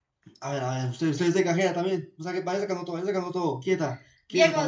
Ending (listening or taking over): taking over